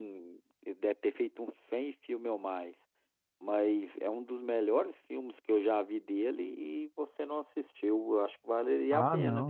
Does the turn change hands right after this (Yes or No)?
Yes